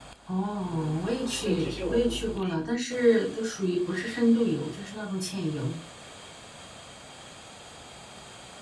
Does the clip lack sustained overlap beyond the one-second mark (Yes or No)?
No